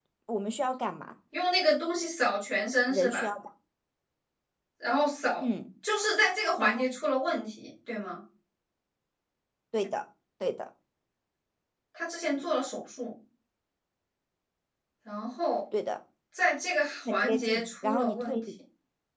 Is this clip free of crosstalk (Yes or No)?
No